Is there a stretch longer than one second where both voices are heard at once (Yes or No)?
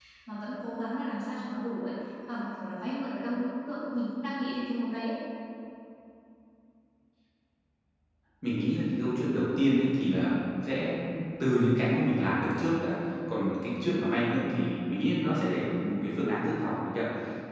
No